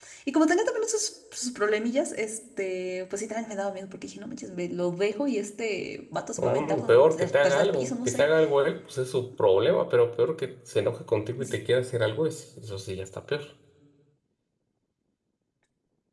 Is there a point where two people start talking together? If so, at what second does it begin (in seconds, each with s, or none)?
6.4 s